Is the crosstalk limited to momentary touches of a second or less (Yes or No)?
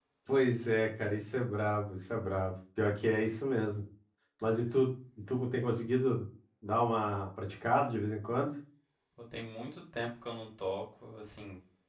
Yes